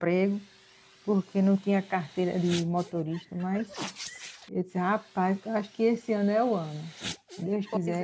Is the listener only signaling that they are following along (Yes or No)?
No